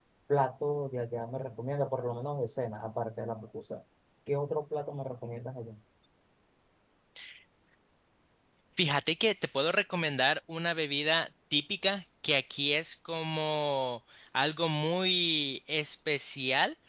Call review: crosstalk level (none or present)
none